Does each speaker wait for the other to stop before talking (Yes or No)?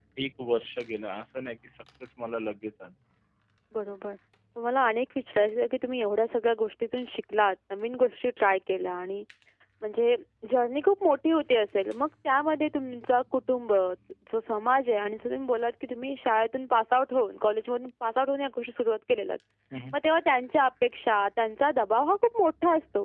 Yes